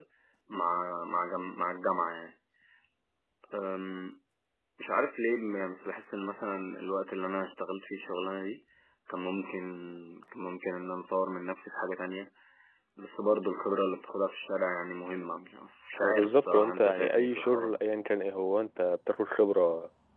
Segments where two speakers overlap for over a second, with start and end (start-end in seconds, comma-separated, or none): 16.0-17.8